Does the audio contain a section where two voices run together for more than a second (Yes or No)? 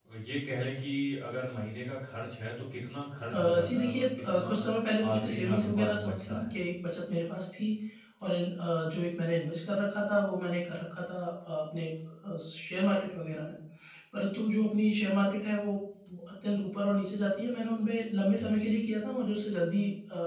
Yes